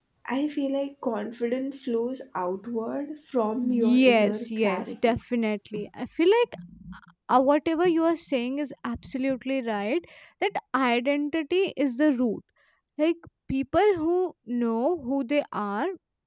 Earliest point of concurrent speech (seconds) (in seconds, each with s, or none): 3.6 s